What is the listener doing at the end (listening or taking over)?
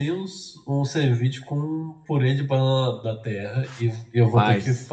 listening